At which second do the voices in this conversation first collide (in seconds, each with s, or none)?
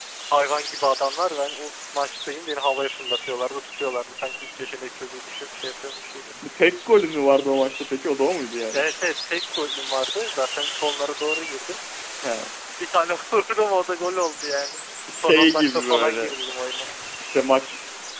15.1 s